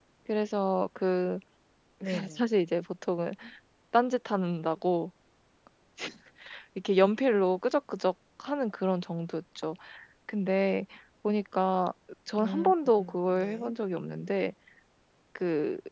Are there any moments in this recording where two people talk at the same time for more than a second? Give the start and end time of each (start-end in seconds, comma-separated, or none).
12.4-13.7